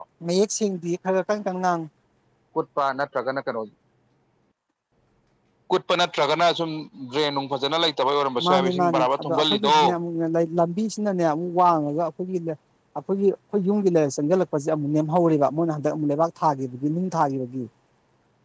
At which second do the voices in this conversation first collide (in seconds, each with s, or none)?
8.4 s